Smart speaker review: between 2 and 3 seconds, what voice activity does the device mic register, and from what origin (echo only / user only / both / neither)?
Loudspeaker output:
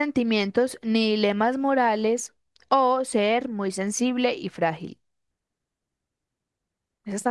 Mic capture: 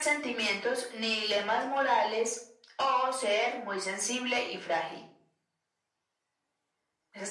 echo only